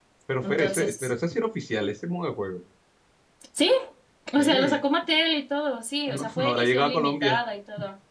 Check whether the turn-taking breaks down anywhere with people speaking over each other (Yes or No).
Yes